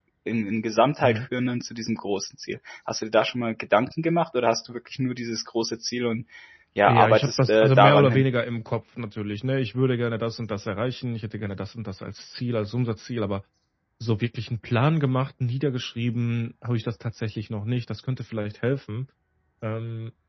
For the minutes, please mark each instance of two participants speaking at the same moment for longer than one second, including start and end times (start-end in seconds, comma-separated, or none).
6.9-8.2